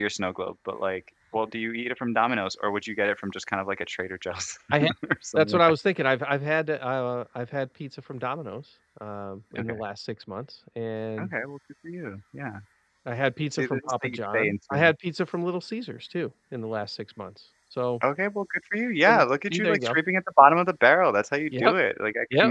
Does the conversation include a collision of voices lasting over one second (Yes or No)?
Yes